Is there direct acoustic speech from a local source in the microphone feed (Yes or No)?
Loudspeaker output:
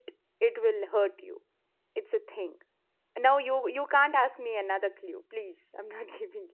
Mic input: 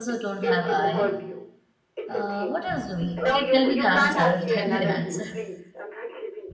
Yes